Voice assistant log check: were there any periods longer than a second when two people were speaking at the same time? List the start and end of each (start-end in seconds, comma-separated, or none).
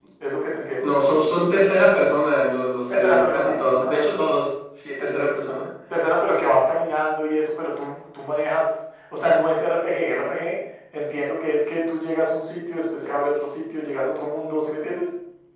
2.9-4.4